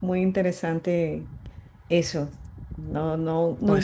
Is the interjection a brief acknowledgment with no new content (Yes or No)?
Yes